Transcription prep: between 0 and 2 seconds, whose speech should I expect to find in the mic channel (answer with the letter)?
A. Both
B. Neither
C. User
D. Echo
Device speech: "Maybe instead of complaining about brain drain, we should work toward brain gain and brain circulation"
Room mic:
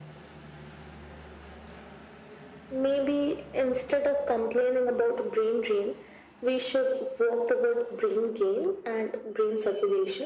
B